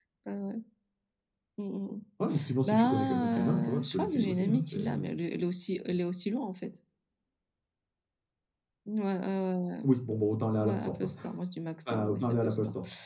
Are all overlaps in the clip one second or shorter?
No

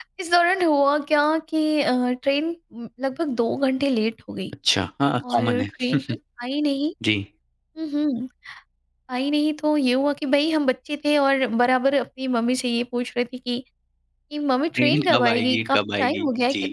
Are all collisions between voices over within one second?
No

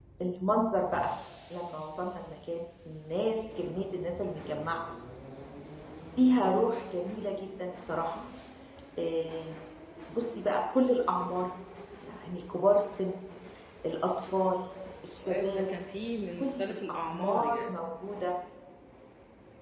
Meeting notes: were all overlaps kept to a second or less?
No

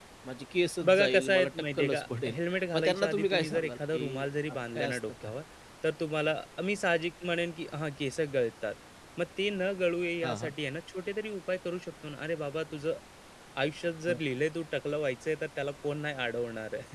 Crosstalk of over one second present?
Yes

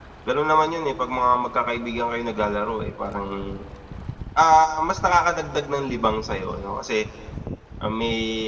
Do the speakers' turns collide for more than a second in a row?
No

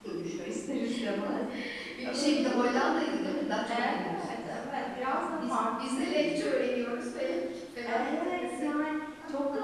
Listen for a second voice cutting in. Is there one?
Yes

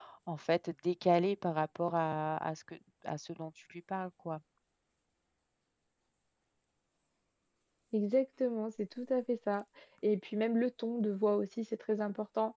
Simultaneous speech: No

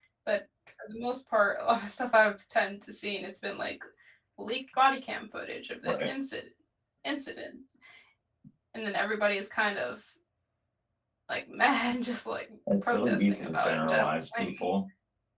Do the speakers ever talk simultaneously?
Yes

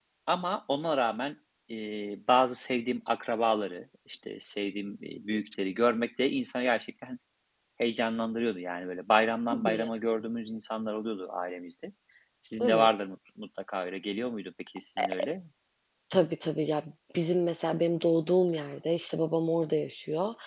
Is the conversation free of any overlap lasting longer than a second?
Yes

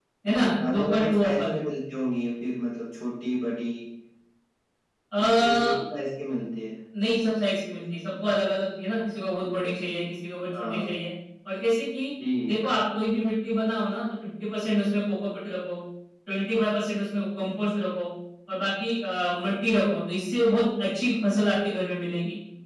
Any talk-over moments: Yes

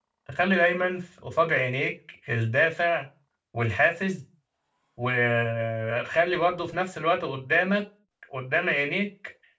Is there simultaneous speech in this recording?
No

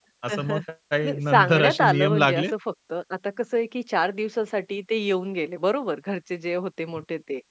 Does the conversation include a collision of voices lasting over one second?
Yes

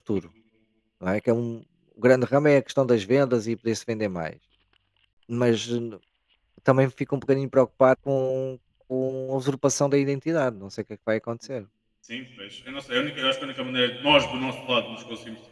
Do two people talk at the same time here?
No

